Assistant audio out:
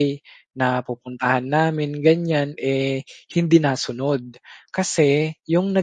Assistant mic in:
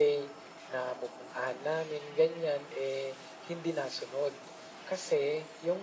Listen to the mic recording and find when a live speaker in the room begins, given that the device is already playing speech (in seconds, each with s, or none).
none